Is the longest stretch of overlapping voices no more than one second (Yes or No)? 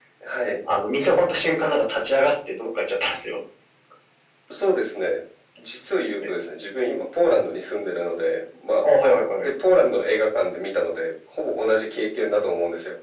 Yes